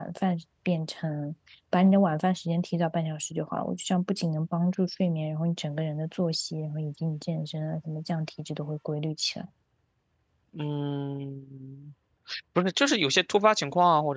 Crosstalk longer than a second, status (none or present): none